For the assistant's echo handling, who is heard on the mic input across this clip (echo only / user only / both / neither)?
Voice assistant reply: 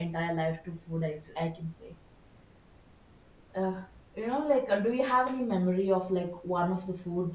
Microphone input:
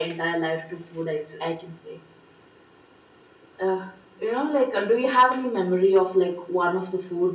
echo only